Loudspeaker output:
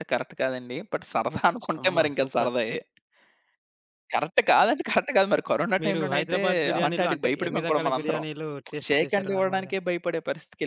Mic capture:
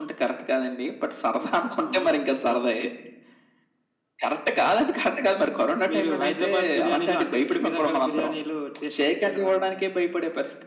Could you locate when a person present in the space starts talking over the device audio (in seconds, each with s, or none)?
none